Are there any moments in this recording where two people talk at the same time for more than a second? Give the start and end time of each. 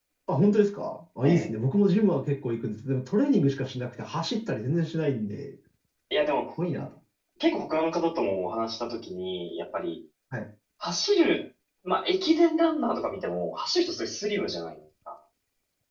none

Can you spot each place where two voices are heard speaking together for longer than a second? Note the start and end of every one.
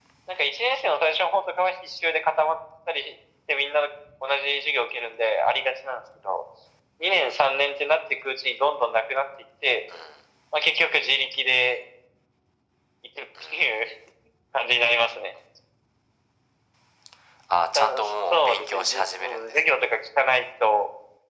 18.3-19.7

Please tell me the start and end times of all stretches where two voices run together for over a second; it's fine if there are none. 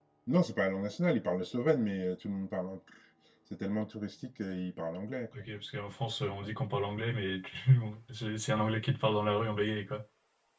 none

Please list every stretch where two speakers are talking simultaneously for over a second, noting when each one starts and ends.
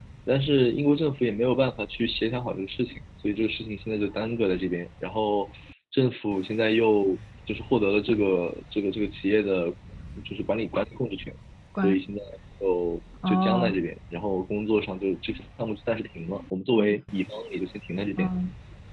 none

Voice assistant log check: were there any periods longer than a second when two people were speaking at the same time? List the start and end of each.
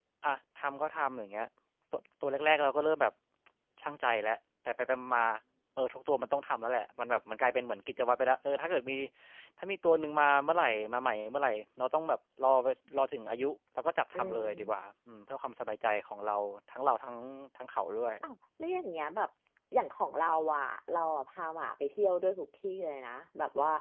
none

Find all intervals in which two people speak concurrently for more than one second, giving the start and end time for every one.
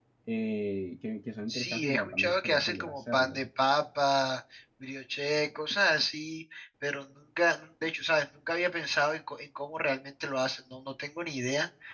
1.5-3.4

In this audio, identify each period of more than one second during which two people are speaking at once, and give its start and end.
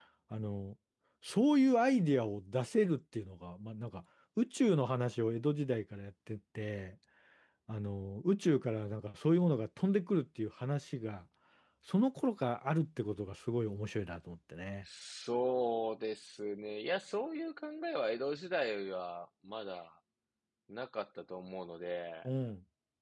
none

